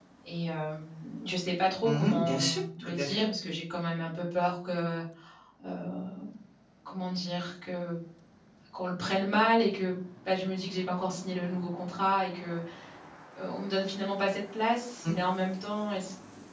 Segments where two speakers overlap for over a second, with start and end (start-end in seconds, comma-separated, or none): 1.8-3.2